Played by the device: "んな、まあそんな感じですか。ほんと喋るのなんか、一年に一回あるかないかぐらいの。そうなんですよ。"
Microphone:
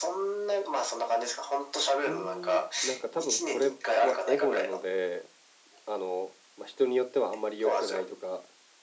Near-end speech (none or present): present